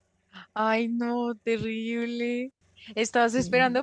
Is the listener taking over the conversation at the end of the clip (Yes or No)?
No